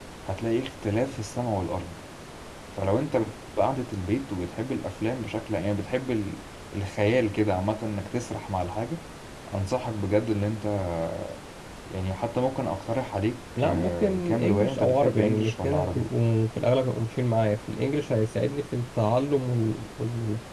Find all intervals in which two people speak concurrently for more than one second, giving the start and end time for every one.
13.6-16.1

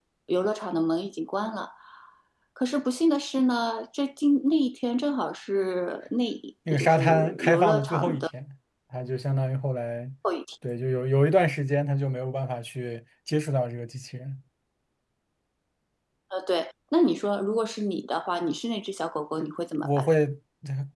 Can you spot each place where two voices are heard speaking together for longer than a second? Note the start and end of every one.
6.8-8.2

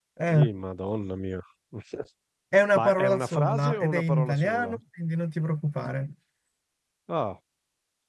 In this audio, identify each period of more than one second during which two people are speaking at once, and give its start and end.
2.8-4.8

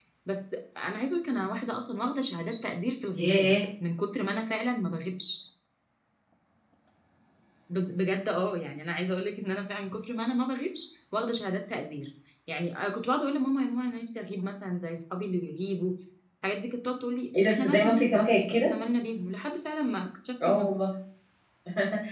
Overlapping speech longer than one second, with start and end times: 17.4-18.7

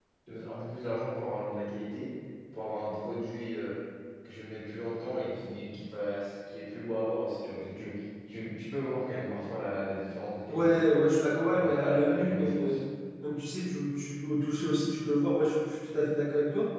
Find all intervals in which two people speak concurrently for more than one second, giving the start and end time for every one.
11.5-12.8

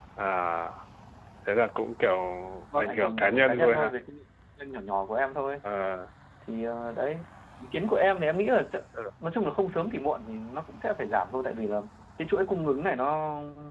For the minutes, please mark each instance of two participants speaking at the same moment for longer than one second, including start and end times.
2.7-3.9

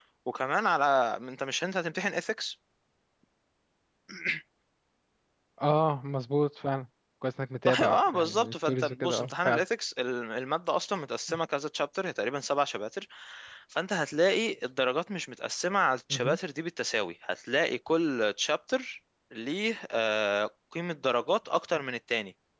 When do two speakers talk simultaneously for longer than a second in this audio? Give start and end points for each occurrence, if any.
7.7-9.6

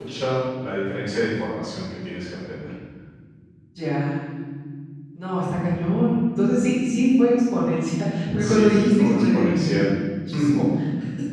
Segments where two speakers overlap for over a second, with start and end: 8.4-9.7

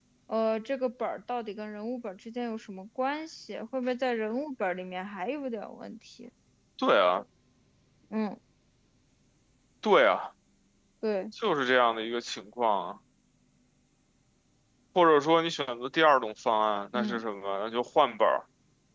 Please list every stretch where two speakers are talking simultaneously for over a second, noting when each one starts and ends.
none

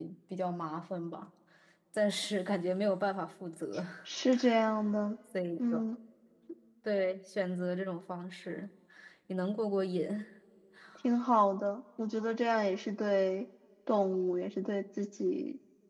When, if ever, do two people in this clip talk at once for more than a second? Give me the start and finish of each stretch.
none

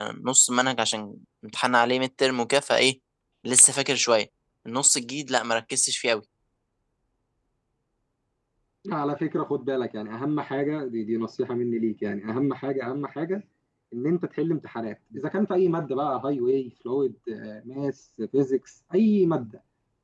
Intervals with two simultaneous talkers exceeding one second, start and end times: none

